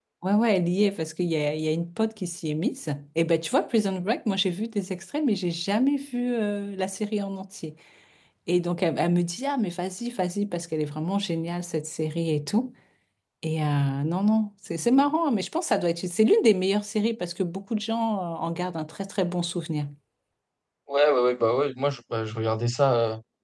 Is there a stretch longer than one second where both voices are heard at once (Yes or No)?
No